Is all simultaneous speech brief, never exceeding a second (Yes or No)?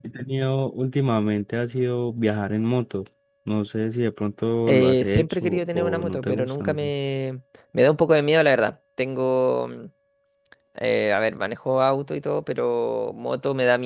No